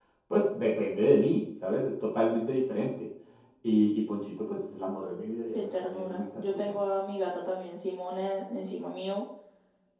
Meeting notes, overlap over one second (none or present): present